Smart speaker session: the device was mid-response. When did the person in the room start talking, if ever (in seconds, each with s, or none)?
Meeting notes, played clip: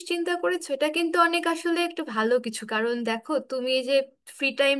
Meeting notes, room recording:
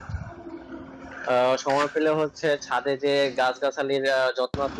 1.3 s